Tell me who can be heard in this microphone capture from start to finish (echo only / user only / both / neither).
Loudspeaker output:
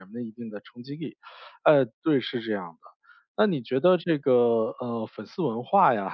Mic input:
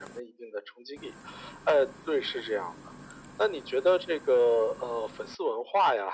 echo only